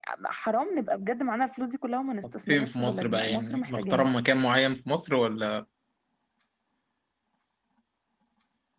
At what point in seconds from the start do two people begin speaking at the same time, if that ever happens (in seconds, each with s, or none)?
2.5 s